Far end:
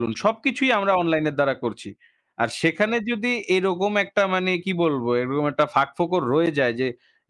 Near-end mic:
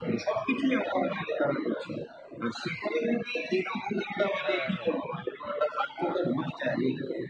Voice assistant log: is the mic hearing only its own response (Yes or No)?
No